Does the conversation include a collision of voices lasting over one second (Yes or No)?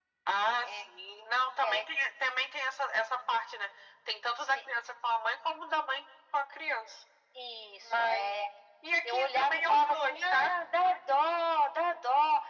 Yes